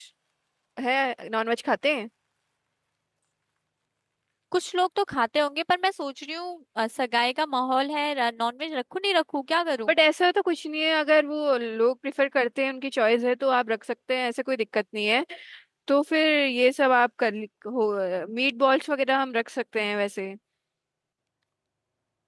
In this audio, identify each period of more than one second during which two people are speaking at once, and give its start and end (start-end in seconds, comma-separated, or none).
none